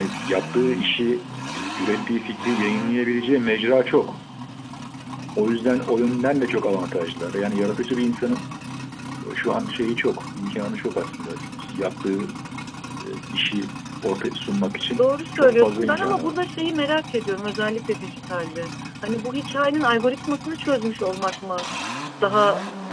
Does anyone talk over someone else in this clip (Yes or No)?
Yes